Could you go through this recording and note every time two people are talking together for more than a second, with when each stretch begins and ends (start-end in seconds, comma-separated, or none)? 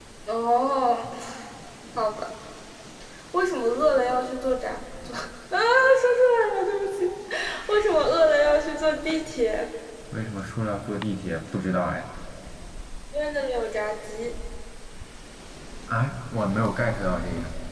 none